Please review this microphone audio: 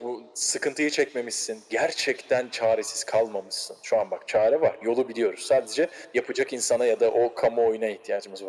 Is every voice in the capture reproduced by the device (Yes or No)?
Yes